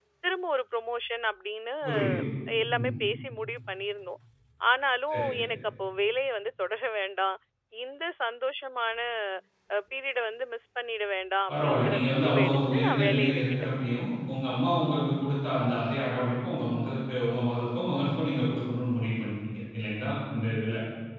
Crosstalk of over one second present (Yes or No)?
Yes